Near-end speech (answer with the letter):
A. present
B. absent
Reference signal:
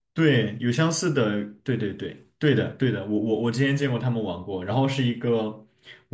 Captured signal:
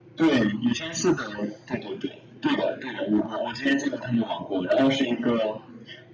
B